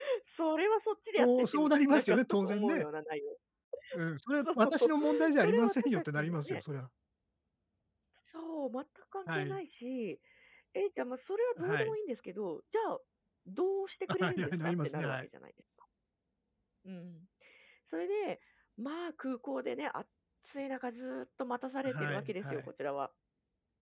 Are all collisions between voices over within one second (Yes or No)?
No